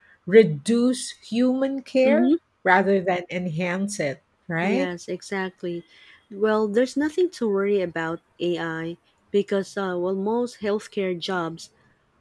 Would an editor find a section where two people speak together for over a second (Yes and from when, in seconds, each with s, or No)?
No